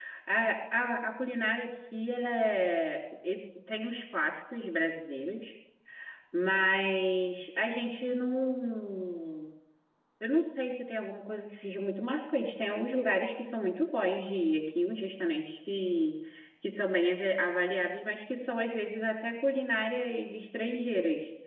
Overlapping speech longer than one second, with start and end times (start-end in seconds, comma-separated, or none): none